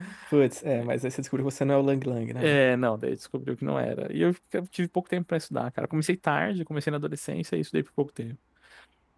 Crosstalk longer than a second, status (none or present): none